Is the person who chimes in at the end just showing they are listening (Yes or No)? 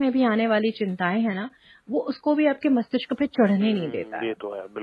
No